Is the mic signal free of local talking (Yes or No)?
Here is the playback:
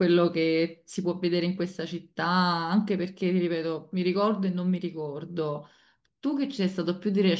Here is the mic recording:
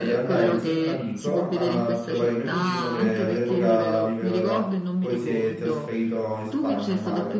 No